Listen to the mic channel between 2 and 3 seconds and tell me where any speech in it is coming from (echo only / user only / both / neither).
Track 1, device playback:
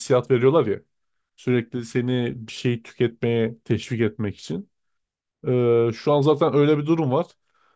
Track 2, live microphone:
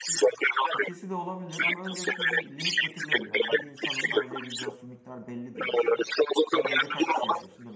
both